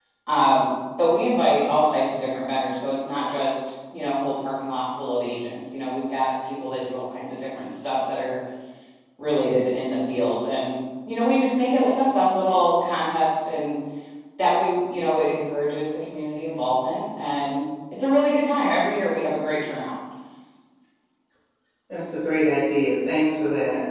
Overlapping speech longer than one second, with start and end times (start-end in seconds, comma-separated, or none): none